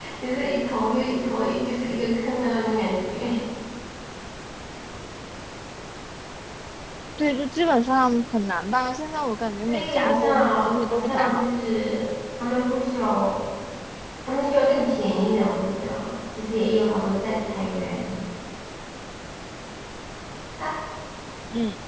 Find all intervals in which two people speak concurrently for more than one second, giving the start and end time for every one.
9.7-11.5

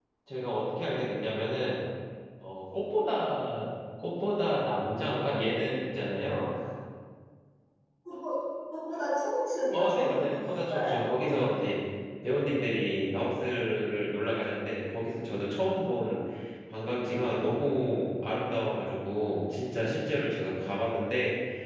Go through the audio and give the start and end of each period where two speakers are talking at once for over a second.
9.7-11.2

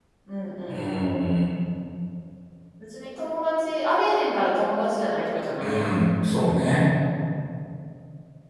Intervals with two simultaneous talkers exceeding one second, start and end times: none

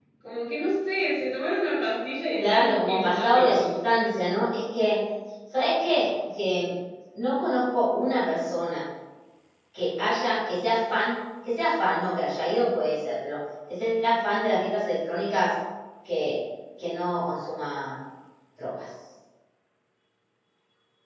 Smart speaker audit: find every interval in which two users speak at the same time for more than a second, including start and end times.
2.3-3.7

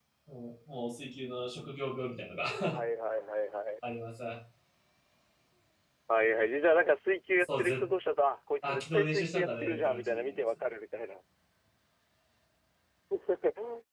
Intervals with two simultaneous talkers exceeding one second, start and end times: 8.6-10.4

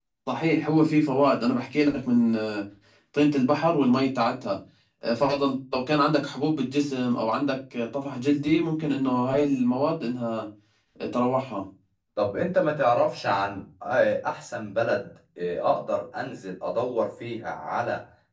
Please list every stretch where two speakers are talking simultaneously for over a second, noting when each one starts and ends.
none

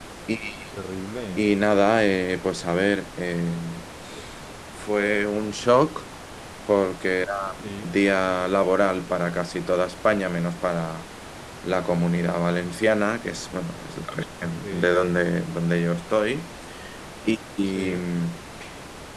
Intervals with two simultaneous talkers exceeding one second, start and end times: none

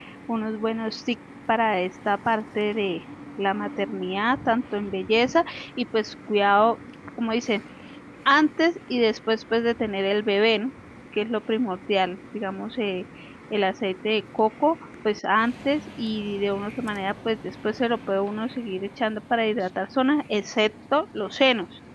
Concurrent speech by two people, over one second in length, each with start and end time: none

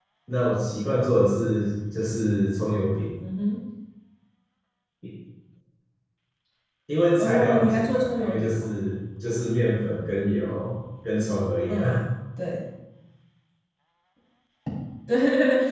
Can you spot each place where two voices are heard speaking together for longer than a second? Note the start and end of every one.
7.2-8.7

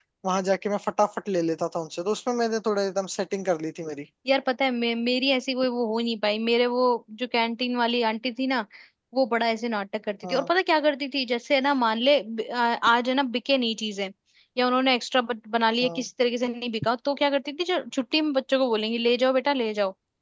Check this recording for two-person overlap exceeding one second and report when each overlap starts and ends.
none

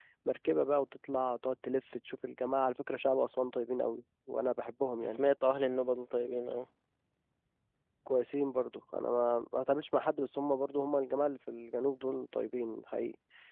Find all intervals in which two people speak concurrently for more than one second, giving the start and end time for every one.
none

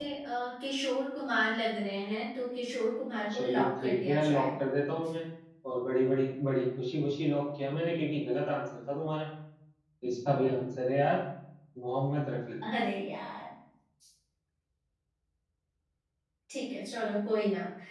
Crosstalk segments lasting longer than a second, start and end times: 3.3-4.6

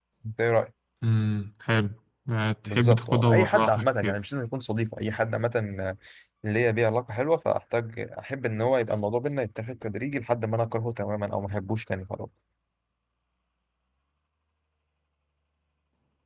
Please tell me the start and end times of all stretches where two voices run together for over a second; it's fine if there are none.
2.6-4.2

